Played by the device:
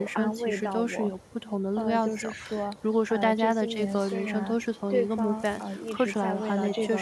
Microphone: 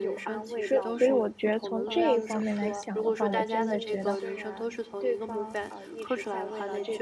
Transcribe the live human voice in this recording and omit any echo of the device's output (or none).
所以所以我觉得从这方面来想的话，我现在觉得